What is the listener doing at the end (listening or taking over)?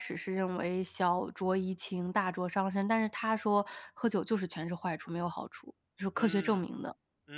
taking over